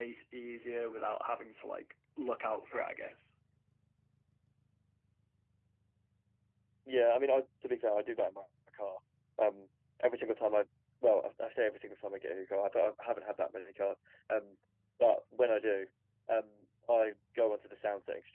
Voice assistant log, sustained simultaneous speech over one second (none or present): none